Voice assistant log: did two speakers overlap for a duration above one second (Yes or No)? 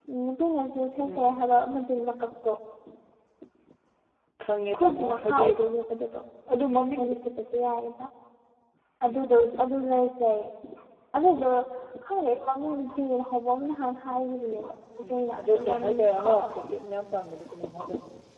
Yes